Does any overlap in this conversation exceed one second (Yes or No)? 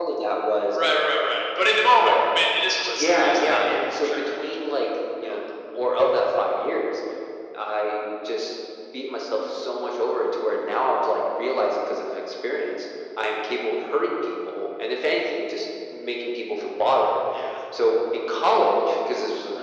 Yes